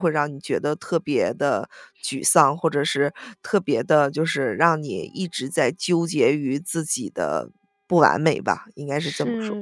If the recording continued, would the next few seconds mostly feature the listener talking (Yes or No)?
Yes